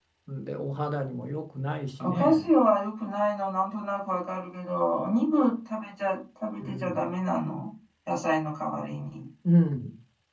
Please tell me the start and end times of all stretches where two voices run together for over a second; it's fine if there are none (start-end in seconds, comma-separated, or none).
none